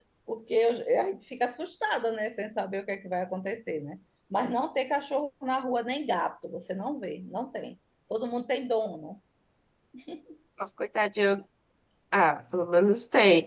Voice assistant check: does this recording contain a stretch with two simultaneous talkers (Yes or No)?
No